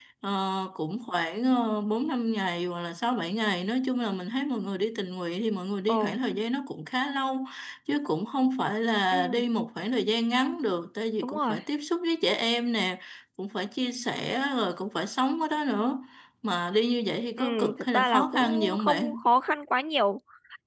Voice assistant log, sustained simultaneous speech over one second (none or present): present